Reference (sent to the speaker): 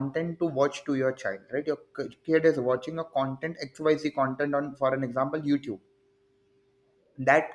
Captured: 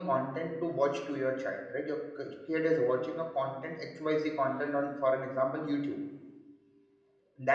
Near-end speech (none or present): none